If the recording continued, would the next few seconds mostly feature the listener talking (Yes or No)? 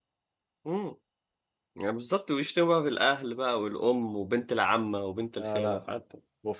Yes